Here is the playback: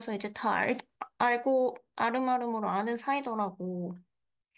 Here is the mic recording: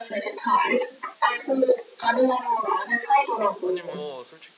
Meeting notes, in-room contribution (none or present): present